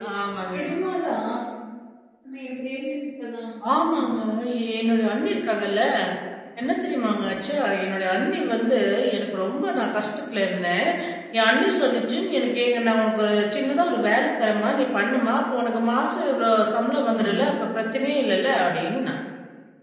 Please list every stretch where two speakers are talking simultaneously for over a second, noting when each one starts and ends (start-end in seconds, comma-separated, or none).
none